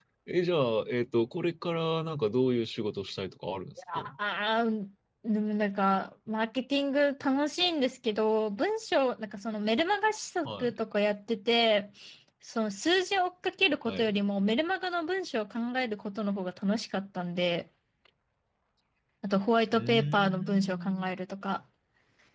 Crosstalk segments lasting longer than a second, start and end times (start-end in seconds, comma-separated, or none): 19.7-21.1